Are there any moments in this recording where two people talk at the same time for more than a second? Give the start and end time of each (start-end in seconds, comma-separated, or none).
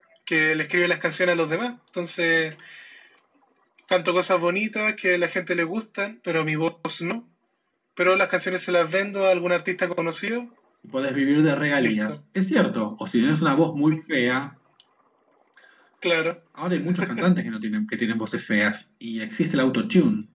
none